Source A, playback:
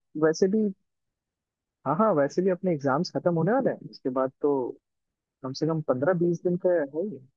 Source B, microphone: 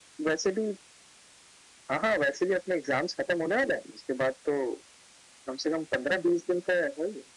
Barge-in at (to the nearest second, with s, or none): none